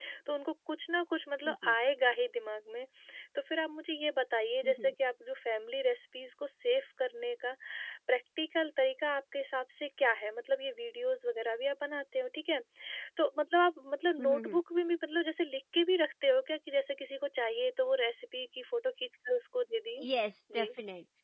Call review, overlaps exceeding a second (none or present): none